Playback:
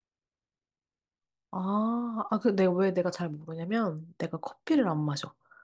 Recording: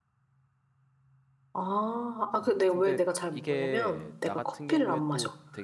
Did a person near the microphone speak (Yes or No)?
Yes